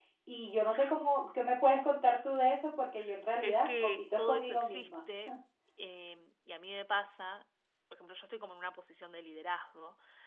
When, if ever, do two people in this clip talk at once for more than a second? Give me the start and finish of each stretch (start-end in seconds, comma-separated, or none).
3.4-4.9